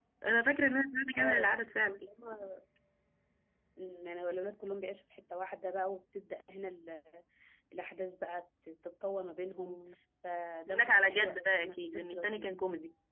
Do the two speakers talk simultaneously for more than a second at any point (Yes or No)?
Yes